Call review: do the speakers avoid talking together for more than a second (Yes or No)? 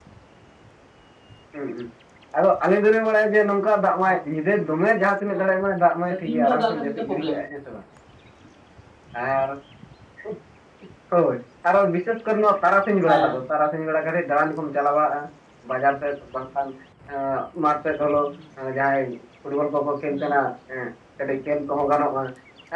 No